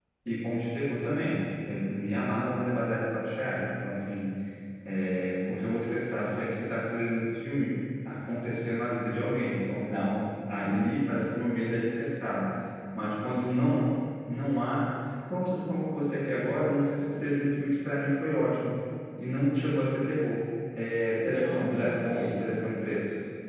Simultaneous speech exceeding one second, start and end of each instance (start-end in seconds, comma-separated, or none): 21.2-22.6